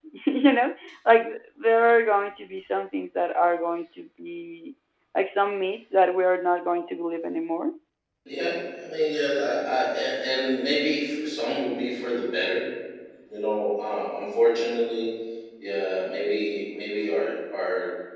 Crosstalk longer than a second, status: none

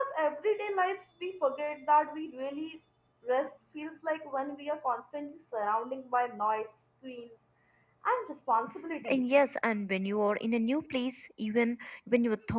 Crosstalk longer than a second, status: none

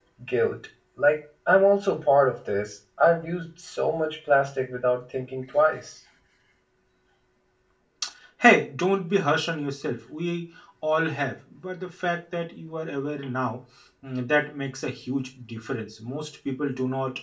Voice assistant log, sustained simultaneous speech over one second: none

